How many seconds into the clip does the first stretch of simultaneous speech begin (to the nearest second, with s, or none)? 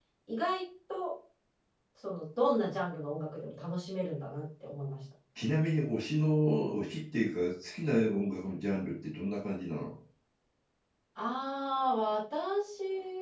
none